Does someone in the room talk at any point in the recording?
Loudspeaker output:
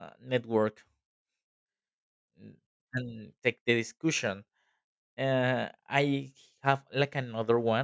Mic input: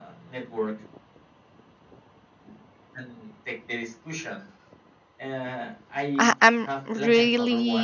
Yes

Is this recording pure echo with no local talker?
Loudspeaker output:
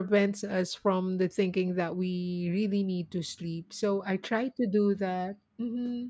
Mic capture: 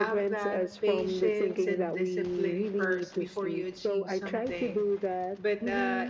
No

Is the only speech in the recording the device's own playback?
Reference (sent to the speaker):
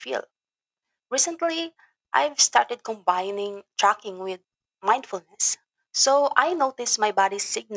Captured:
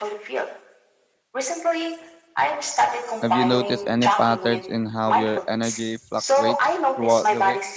No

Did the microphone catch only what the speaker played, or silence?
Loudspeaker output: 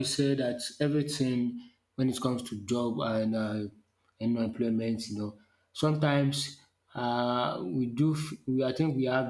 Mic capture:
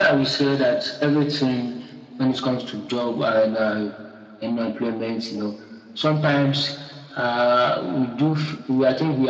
Yes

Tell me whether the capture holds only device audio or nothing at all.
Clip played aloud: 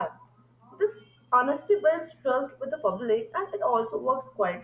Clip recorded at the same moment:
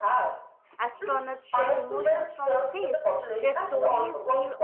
No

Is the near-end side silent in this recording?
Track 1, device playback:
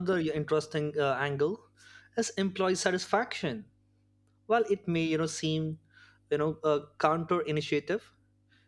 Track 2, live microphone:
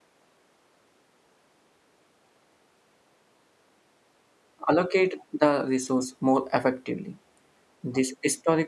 No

